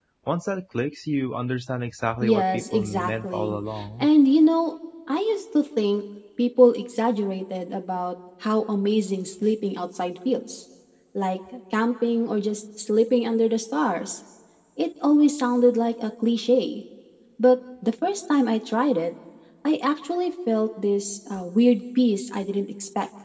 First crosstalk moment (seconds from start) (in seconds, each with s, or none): 2.2 s